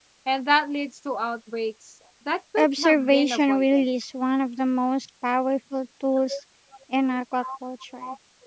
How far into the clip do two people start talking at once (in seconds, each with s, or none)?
2.6 s